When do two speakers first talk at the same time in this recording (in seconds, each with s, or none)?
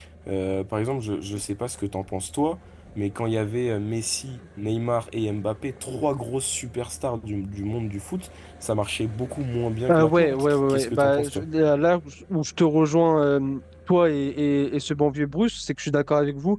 9.9 s